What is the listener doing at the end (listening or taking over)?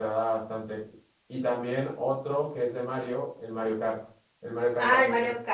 taking over